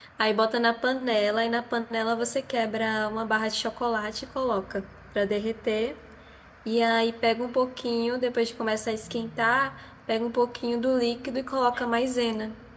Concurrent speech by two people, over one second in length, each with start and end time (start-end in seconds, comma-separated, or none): none